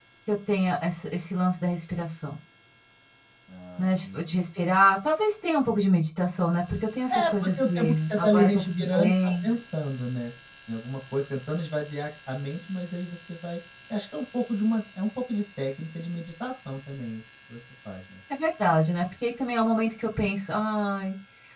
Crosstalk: present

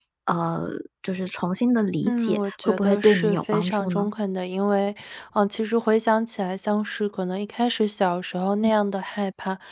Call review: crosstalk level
present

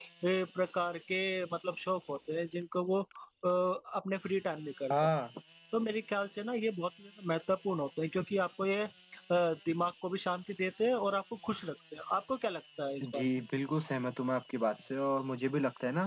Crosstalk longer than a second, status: none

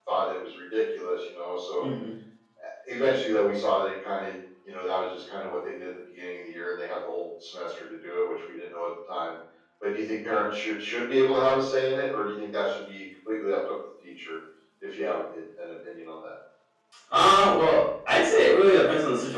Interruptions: none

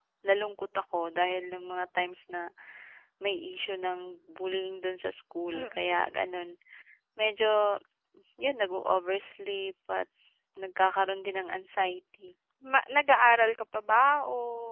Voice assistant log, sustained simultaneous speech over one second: none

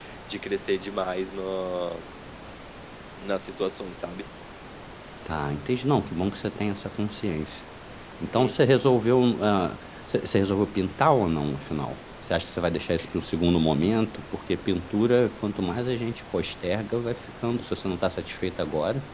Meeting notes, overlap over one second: none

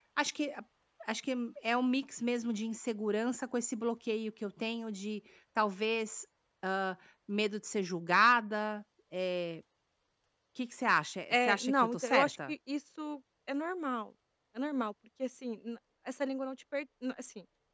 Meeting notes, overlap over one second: present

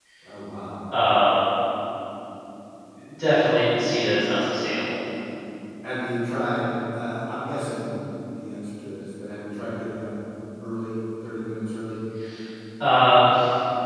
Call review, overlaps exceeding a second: none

